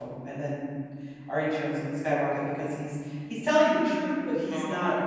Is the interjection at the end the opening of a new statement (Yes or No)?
No